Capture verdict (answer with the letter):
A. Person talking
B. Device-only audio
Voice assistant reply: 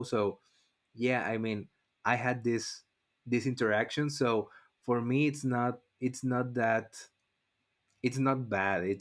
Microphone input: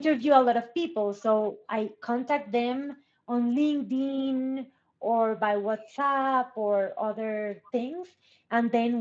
A